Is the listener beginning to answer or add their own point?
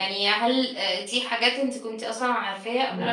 No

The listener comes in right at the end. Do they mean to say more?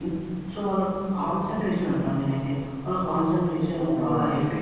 No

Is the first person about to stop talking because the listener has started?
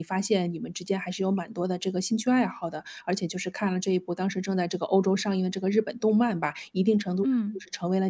No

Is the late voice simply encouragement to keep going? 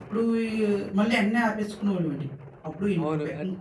No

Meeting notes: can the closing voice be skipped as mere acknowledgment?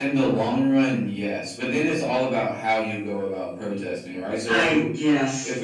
Yes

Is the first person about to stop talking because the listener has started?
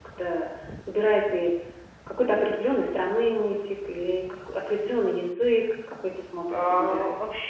Yes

